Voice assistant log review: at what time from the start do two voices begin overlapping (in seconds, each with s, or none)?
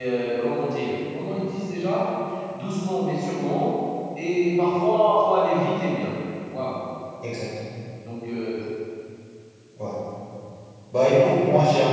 none